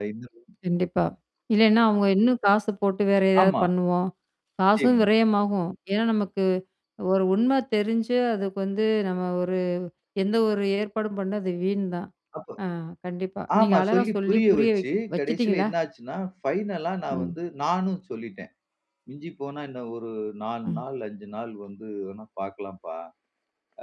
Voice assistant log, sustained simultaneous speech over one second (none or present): present